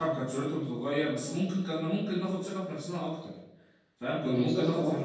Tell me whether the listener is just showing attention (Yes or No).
Yes